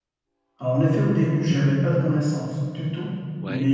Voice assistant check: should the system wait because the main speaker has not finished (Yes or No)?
Yes